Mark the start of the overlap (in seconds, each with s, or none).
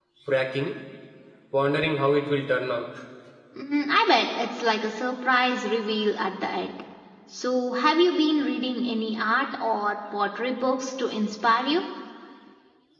none